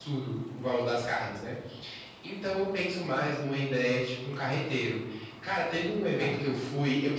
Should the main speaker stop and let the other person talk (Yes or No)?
No